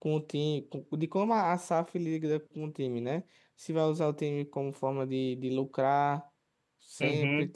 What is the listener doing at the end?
taking over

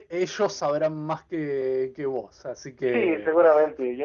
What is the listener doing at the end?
taking over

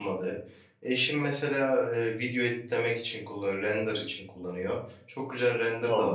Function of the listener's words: listening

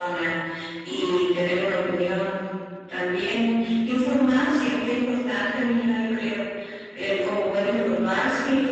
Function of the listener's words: listening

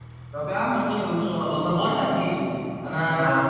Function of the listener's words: listening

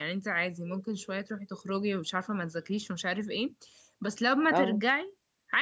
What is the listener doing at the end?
listening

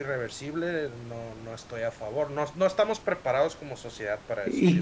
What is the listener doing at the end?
taking over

